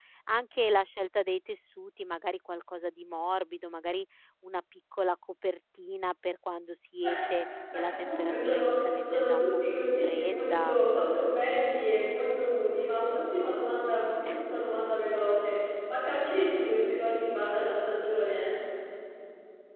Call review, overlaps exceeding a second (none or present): present